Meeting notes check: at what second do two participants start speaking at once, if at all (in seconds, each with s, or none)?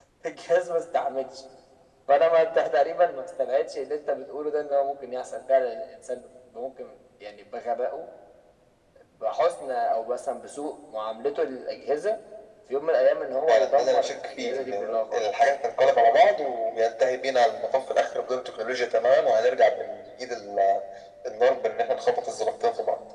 13.5 s